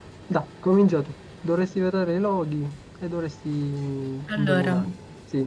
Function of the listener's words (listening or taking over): listening